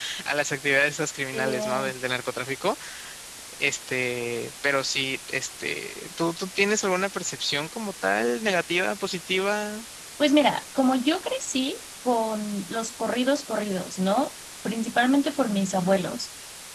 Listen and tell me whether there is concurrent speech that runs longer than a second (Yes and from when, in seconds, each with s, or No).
No